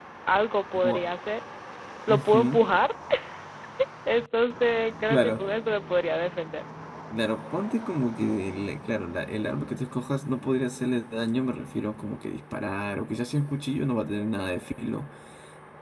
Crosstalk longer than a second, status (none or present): none